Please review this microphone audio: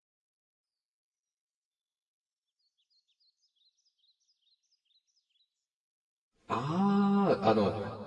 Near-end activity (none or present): present